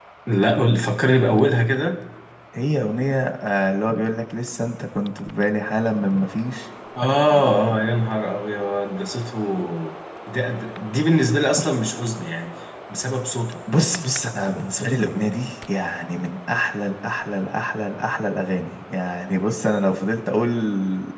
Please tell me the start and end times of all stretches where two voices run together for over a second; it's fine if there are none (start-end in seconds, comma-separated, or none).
none